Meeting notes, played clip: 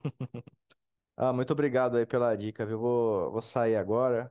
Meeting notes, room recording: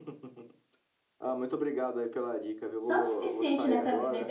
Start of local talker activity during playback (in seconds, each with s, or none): 2.8 s